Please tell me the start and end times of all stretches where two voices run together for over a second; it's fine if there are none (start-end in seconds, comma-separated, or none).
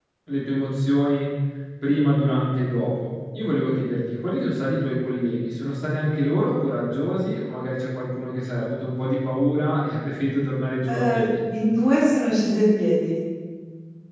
none